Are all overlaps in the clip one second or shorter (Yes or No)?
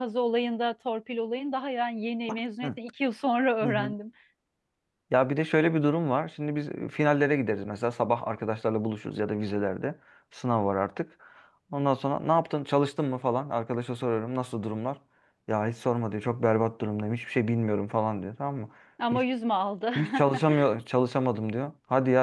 Yes